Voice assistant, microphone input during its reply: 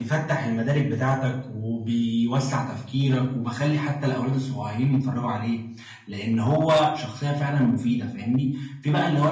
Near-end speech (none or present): present